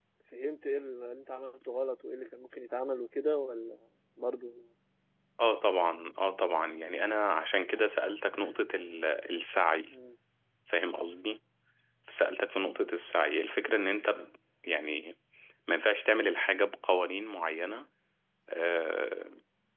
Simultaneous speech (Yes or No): No